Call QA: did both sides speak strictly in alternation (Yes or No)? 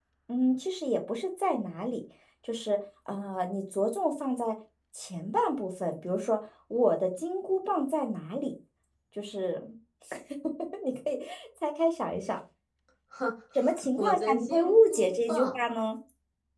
No